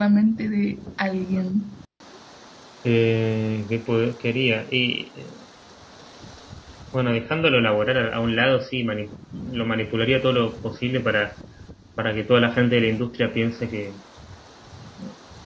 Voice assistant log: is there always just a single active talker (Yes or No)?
Yes